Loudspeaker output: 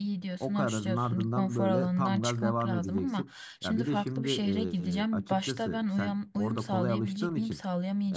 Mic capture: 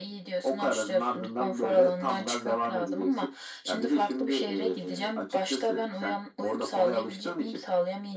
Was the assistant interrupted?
No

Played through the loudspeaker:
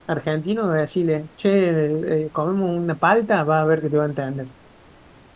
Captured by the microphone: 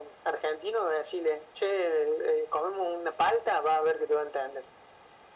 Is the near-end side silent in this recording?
Yes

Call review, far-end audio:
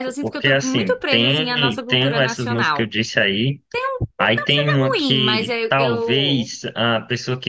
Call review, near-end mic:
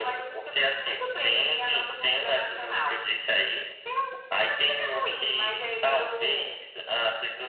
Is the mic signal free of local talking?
Yes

